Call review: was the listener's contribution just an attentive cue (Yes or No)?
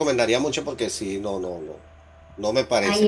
No